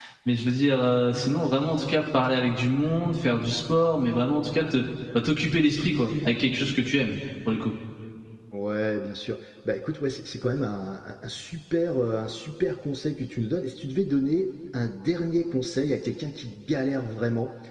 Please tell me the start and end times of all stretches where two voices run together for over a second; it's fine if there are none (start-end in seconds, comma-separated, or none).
none